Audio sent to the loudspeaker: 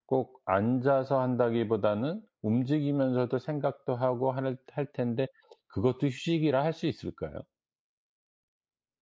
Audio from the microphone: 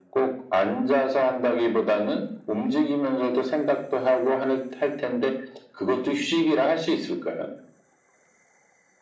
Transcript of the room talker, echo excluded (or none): none